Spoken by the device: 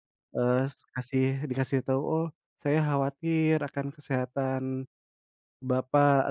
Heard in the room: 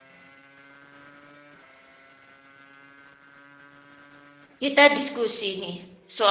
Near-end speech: present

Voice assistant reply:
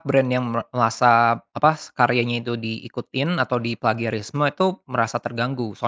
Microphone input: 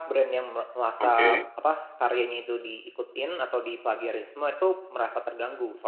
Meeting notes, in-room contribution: present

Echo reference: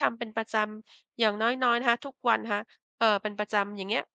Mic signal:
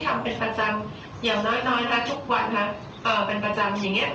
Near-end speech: none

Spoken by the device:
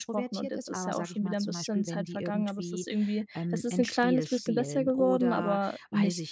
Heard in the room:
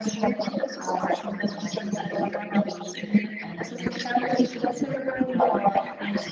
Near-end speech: none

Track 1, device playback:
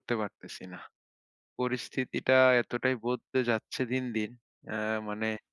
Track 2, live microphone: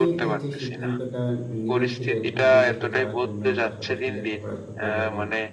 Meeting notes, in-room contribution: present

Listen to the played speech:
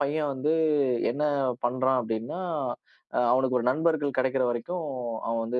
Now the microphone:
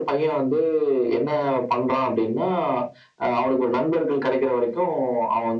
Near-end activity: none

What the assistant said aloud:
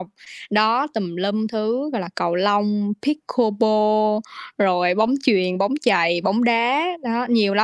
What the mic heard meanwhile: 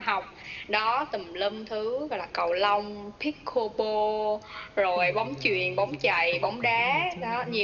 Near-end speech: present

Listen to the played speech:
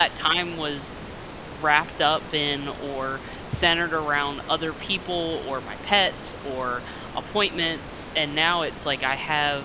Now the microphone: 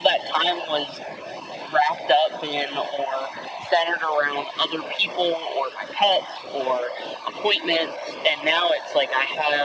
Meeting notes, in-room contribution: none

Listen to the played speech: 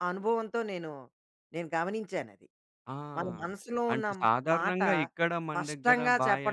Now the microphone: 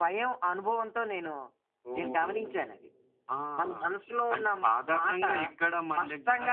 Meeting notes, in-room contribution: present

